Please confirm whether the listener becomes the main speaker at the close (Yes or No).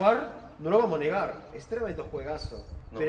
No